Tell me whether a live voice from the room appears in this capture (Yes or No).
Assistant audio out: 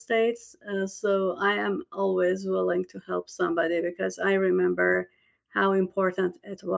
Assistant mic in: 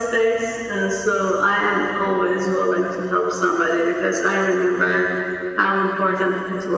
No